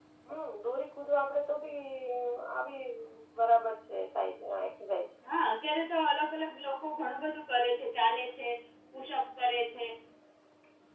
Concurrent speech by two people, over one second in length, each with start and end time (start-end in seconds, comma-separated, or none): none